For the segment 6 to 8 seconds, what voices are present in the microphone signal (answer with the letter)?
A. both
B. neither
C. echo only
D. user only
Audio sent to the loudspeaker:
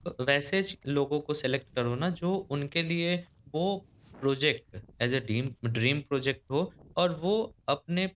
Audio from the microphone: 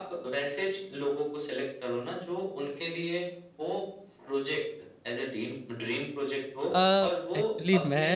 A